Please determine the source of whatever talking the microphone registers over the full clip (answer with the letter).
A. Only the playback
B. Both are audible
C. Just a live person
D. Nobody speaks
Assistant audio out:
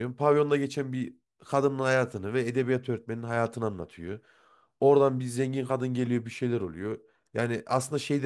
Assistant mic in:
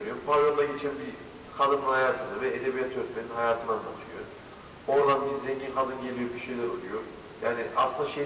A